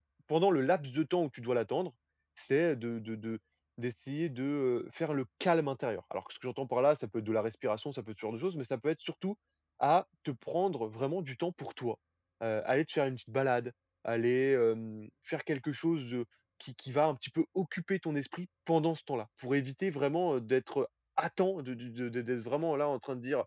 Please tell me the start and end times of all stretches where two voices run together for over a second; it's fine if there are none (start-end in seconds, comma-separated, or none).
none